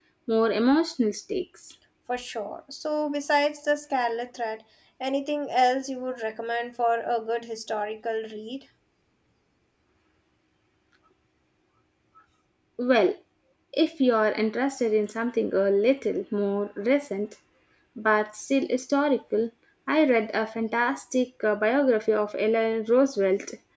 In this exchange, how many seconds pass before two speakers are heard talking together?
none

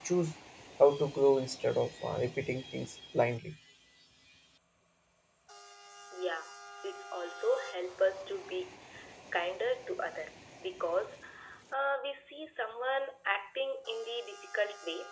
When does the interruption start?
none

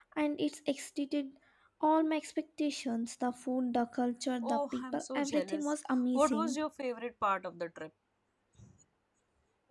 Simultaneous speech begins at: 4 s

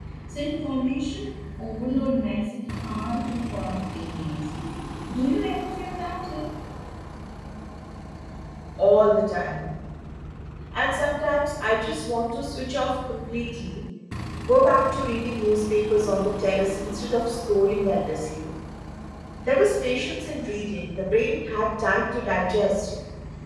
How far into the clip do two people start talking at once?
none

